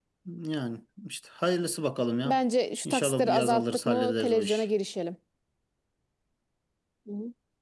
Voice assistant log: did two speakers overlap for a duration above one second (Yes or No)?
Yes